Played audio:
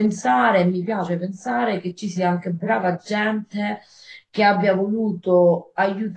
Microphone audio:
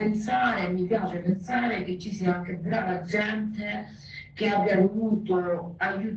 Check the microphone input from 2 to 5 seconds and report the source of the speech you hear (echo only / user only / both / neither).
echo only